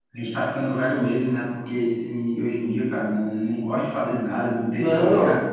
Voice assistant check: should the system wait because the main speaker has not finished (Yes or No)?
Yes